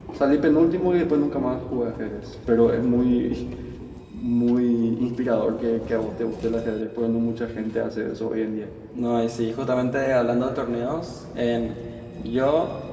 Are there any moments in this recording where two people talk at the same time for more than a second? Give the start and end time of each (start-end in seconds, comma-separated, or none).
none